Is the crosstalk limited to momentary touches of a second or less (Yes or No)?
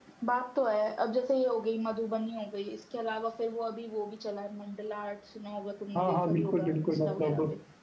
No